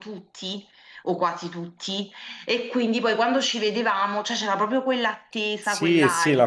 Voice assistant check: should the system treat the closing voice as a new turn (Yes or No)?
Yes